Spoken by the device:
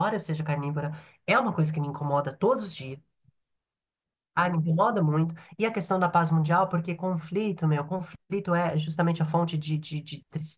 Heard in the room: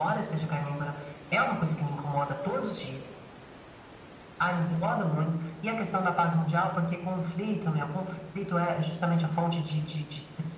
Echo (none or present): present